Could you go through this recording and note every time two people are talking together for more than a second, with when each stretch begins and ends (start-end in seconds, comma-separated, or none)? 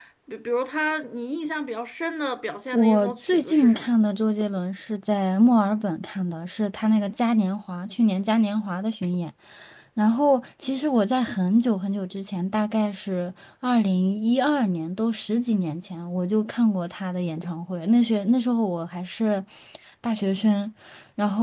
2.7-3.9